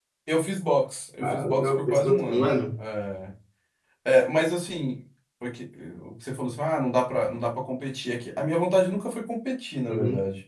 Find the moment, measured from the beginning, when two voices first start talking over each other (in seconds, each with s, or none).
1.2 s